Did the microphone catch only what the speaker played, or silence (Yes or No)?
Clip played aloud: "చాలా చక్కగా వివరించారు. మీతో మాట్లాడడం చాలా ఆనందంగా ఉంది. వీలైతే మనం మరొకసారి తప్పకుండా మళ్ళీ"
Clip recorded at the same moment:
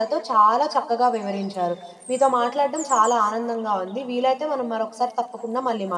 Yes